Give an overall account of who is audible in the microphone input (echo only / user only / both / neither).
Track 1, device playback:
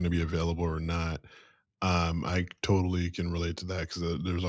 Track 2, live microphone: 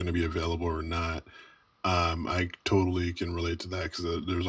echo only